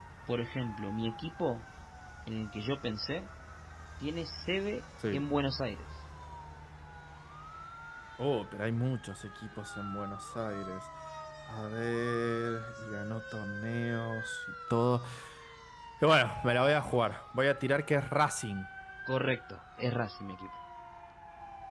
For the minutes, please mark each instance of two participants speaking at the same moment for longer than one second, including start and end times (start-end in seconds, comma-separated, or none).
none